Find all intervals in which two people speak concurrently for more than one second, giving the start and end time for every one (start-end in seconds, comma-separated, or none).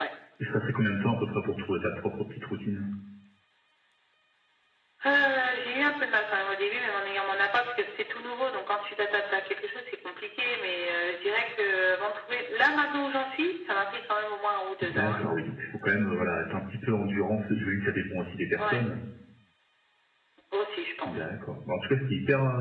none